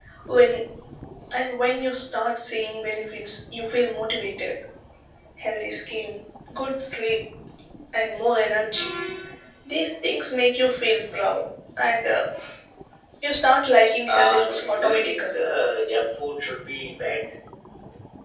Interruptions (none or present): present